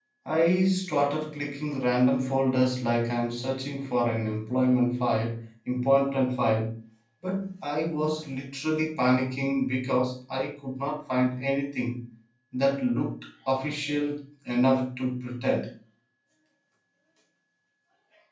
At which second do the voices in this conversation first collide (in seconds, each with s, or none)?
none